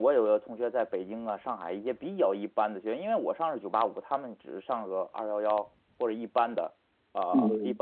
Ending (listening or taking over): listening